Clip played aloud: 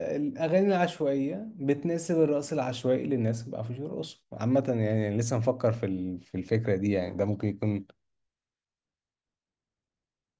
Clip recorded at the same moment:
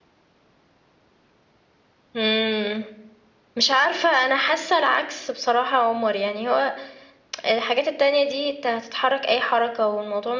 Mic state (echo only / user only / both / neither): user only